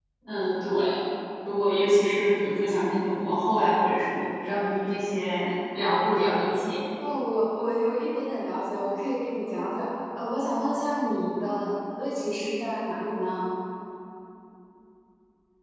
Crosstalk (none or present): none